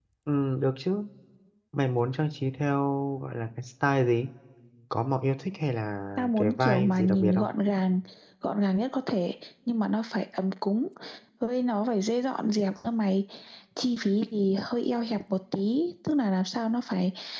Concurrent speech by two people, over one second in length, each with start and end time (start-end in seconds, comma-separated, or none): 6.2-7.5